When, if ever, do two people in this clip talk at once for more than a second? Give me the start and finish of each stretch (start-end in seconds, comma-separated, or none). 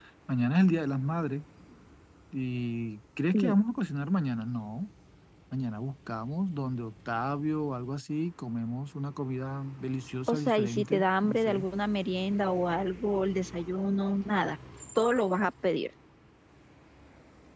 10.3-11.7